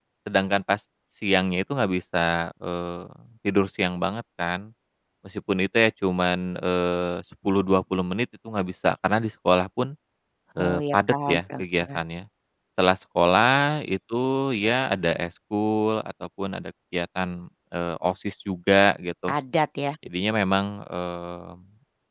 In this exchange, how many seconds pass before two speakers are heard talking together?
10.6 s

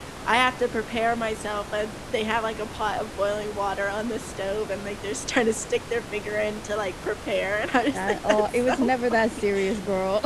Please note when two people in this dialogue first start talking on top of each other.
7.9 s

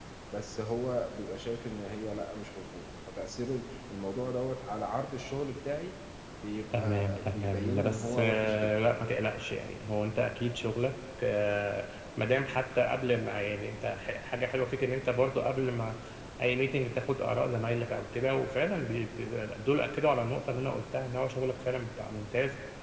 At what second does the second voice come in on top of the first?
6.7 s

